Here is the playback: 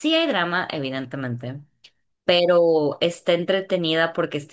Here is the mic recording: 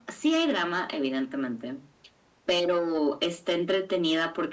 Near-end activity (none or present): none